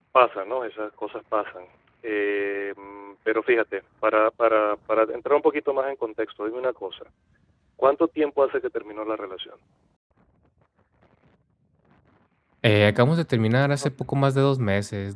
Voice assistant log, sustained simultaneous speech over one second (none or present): none